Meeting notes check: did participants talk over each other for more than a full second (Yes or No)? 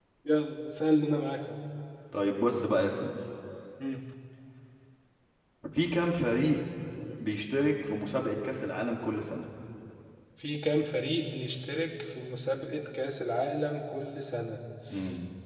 No